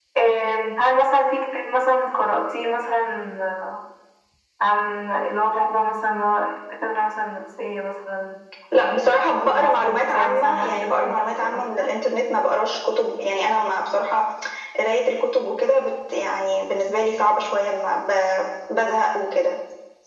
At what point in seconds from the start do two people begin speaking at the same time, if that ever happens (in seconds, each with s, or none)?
8.8 s